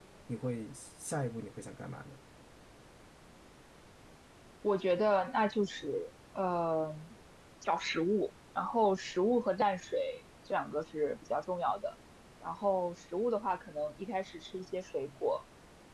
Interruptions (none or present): none